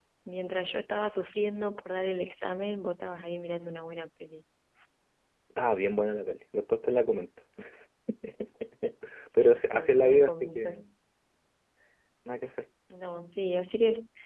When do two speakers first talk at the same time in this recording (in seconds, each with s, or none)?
9.3 s